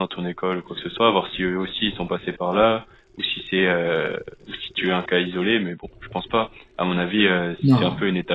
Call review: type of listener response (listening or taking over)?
listening